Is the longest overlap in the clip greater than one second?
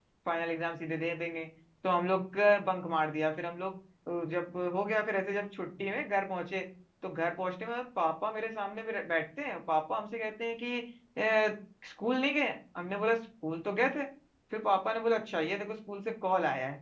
No

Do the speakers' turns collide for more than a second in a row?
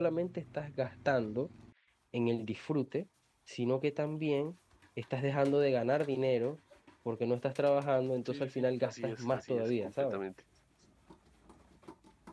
Yes, from 8.2 s

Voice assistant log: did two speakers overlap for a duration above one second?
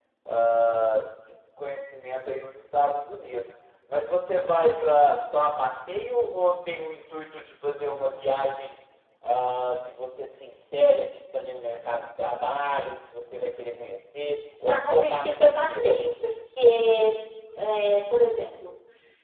Yes, from 14.7 s

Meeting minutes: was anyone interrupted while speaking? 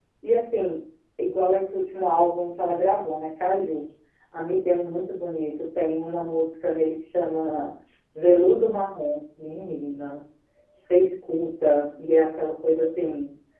No

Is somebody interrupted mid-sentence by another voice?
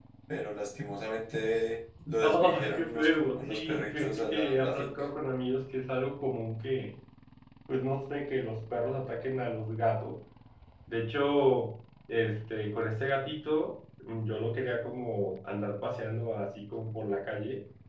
Yes, from 2.2 s

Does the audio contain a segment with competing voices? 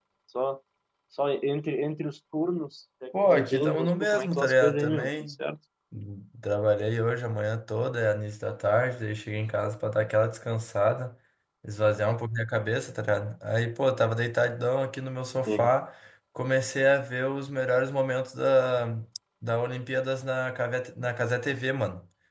Yes, from 3.1 s

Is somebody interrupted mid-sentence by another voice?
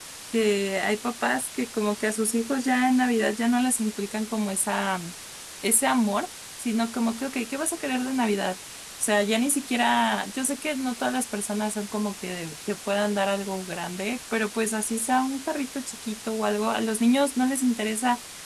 No

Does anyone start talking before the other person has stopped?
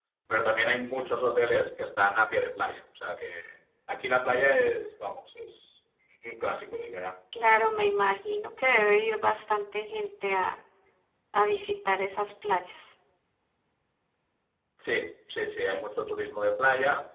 No

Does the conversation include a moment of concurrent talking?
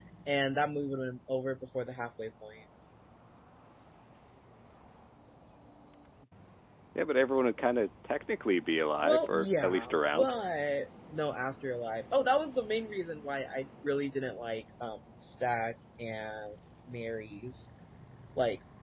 Yes, from 9.0 s

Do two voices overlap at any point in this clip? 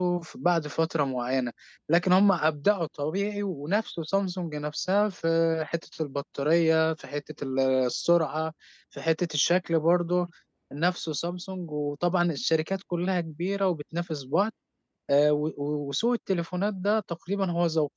No

